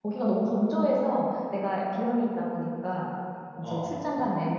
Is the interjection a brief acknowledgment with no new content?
Yes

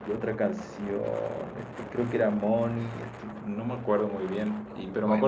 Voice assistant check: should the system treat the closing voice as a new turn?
No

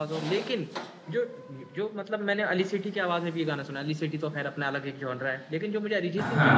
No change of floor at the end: Yes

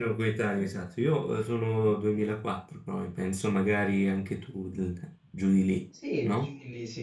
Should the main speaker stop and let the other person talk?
Yes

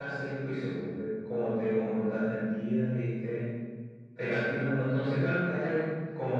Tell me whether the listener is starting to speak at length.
No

